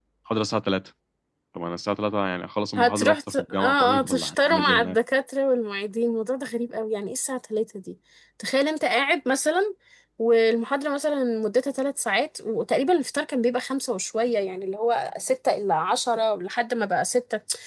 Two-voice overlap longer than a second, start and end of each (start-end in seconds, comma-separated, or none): 2.8-5.0